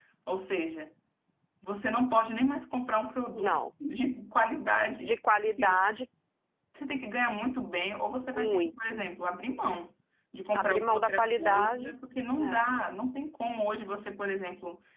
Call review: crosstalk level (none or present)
present